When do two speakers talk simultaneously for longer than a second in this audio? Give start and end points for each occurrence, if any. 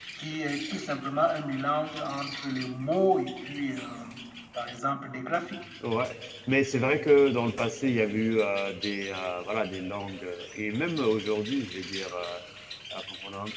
none

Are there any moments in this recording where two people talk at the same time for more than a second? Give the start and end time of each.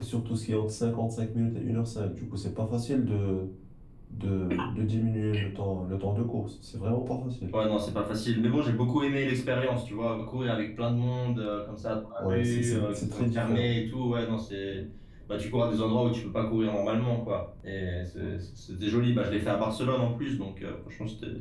12.2-13.8

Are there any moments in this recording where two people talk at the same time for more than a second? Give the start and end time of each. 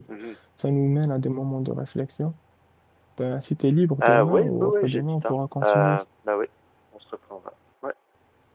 4.0-6.0

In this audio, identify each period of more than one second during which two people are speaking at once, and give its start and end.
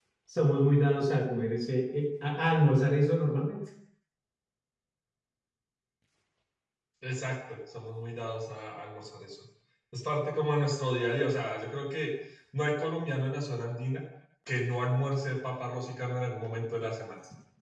none

